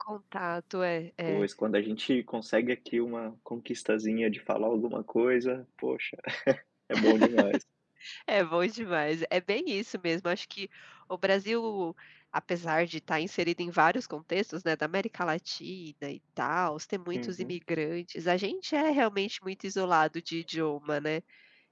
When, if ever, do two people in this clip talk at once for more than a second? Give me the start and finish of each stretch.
none

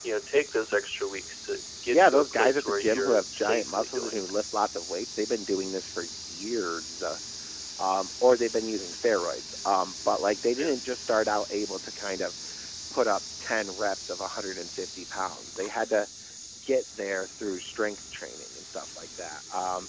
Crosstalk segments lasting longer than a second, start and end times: 1.9-4.3

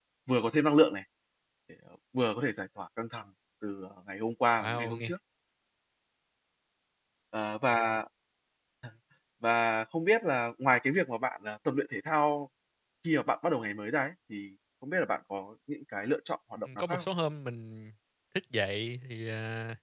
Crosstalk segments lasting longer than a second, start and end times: none

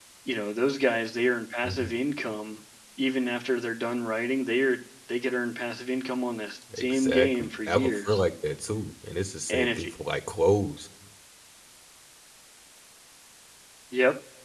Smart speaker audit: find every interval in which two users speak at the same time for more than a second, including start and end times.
6.8-8.2

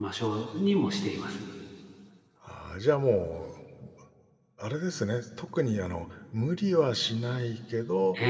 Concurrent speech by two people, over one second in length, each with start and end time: none

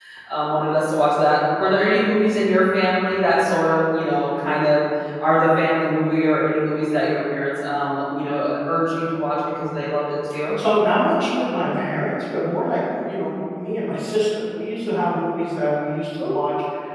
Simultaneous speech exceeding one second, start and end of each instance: none

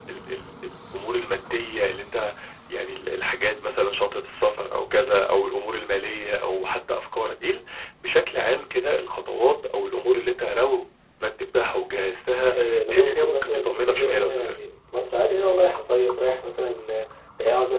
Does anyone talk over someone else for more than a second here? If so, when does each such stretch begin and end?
12.5-14.6

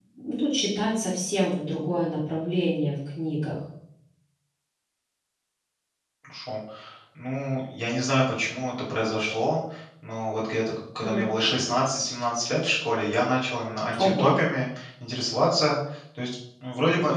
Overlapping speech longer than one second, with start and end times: none

